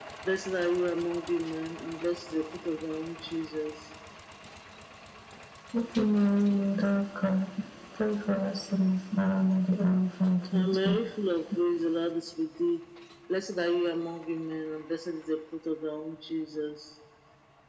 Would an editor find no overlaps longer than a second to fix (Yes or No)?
Yes